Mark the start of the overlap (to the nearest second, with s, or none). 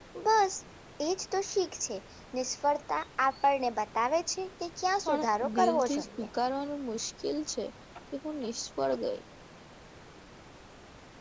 5 s